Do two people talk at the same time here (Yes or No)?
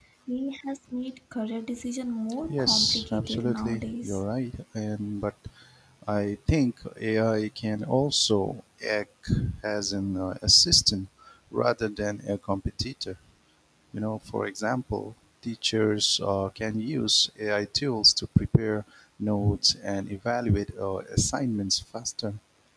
Yes